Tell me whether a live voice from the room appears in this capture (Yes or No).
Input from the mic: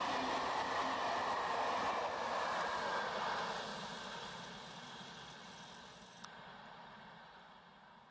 No